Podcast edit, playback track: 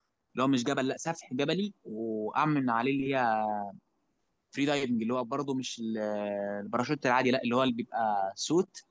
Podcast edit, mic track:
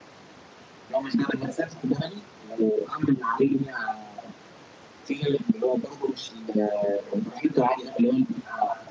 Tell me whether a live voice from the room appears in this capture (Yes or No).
No